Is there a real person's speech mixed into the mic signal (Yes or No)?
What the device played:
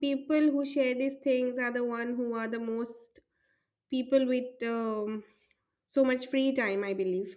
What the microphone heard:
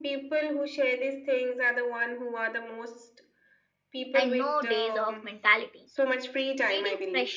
Yes